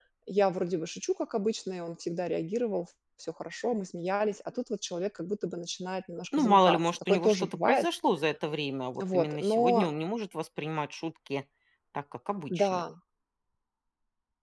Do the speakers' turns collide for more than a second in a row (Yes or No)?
Yes